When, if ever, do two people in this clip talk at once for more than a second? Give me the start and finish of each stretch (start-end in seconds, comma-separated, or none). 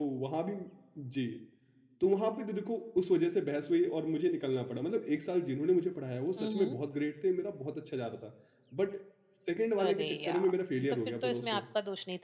9.8-11.6